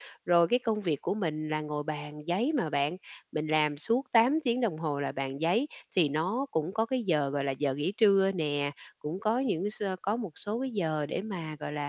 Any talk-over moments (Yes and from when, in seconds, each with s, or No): No